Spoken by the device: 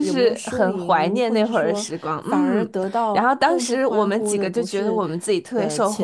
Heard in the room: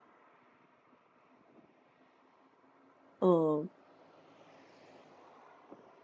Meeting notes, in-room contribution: present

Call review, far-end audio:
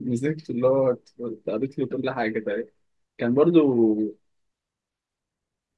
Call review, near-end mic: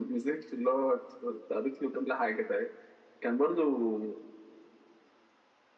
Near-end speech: none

